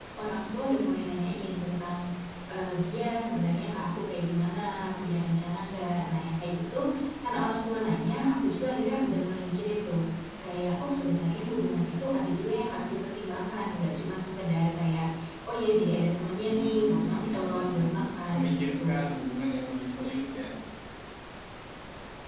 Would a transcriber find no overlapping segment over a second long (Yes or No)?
No